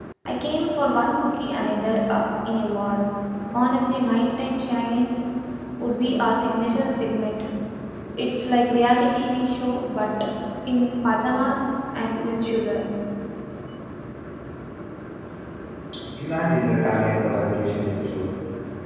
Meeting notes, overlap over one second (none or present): none